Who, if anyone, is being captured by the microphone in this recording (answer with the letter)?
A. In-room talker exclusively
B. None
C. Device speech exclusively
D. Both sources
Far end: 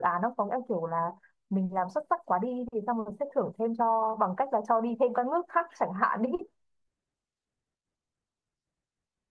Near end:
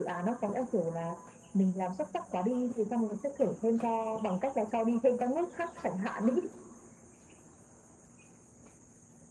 C